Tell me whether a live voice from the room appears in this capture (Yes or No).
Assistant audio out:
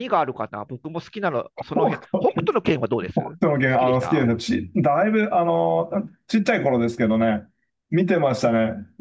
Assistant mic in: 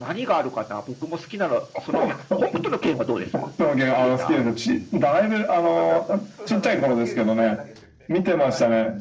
Yes